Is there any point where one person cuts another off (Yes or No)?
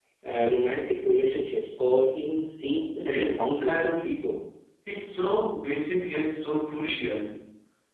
Yes